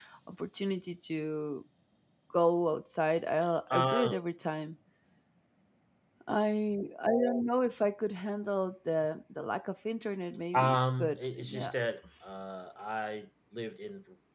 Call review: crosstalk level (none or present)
present